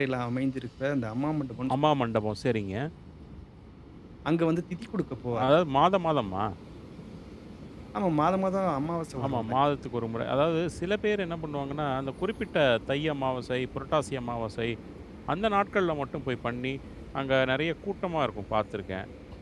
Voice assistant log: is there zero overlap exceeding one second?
Yes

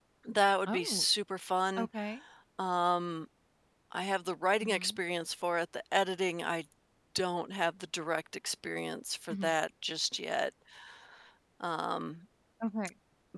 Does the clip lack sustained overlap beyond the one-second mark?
Yes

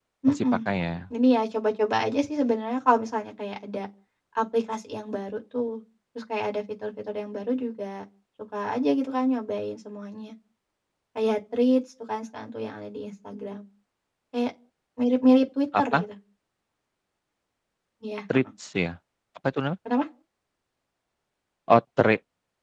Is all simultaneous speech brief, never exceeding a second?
Yes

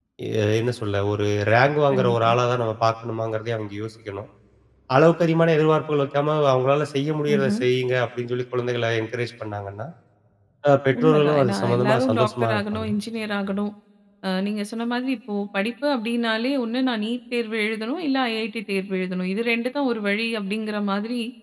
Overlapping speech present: Yes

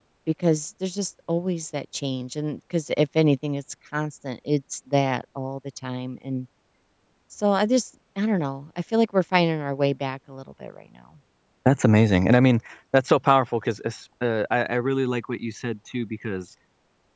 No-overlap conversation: Yes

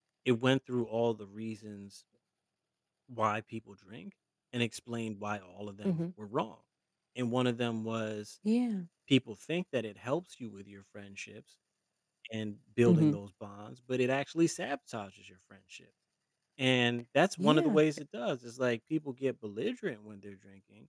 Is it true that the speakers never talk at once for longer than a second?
Yes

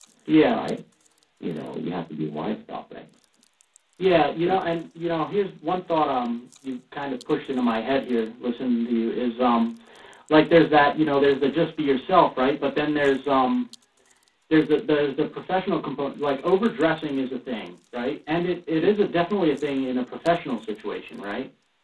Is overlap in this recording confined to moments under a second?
Yes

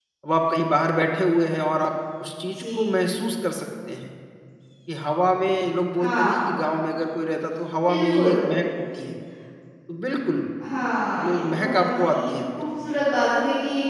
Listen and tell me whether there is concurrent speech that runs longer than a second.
Yes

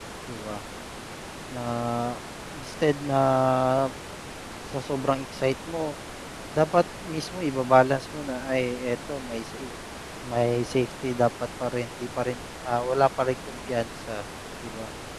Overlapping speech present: No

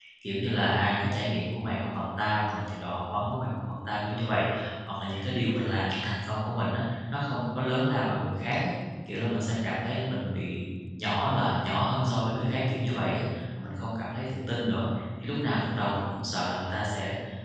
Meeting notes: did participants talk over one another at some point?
No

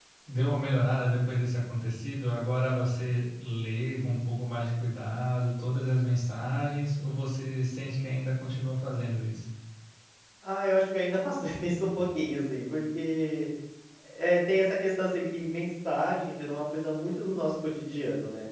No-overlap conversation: Yes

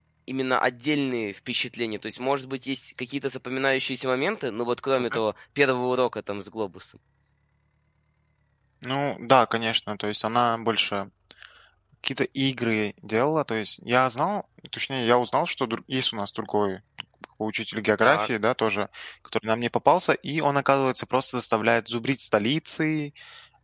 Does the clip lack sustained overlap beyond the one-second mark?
Yes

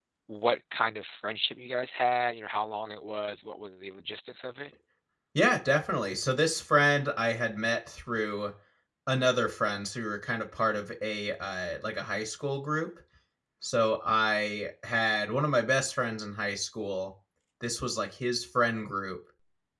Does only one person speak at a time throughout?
Yes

